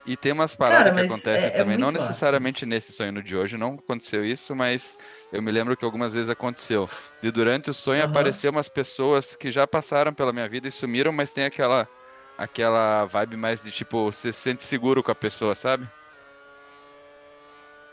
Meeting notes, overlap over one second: present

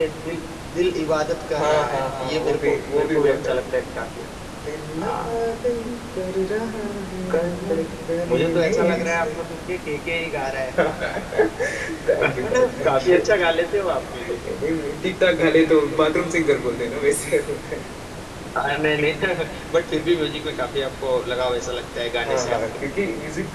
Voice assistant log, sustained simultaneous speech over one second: present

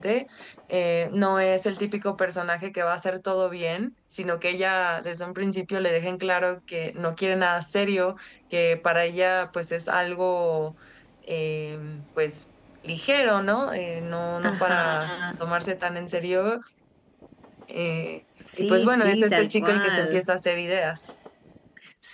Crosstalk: present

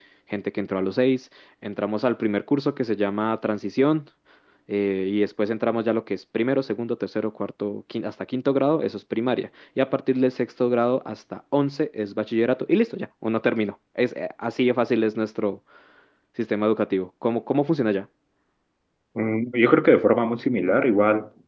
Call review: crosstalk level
none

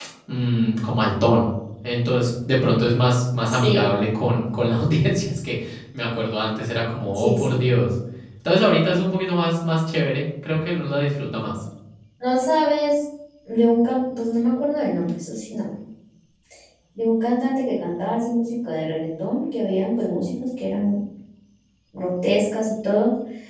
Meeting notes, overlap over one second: none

